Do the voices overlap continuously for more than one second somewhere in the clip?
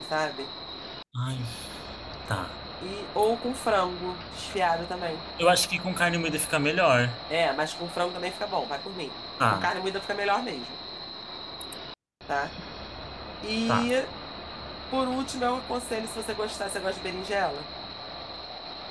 No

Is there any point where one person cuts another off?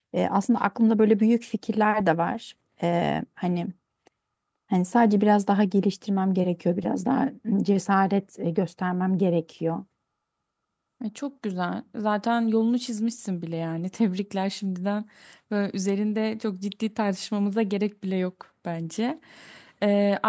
No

